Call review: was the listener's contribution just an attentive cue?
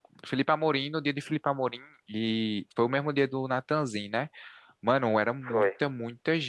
Yes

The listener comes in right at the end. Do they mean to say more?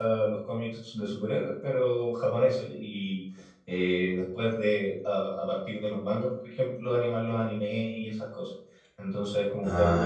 No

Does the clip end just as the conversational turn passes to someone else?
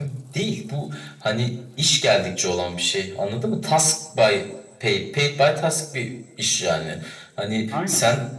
No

